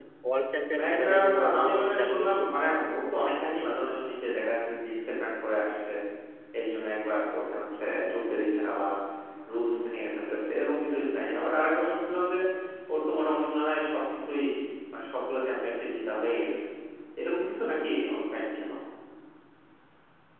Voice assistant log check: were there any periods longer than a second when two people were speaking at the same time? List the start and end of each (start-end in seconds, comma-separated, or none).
0.8-2.4